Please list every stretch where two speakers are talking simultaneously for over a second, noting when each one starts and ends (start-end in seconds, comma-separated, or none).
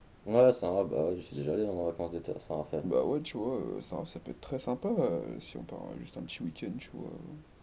none